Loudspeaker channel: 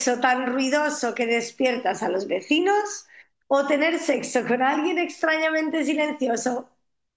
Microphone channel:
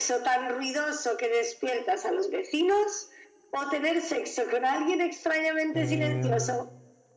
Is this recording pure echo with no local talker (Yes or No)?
No